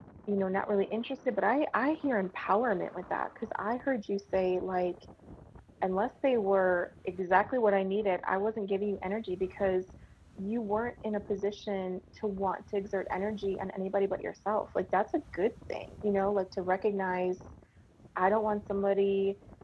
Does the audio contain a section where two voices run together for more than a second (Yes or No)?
No